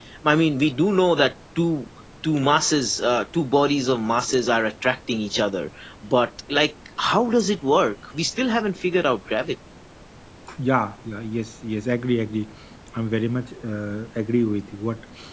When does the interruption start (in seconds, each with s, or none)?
none